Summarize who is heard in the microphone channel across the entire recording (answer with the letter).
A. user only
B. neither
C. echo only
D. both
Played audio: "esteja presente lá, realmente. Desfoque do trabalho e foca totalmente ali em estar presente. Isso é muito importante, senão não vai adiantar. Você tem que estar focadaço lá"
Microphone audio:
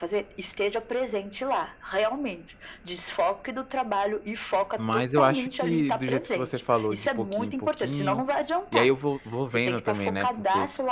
D